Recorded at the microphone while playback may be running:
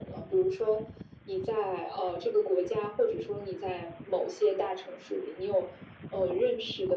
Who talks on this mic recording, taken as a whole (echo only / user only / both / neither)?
echo only